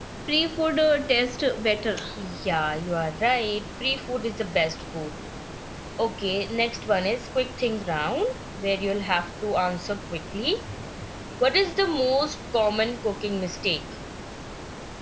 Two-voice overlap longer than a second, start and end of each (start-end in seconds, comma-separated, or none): none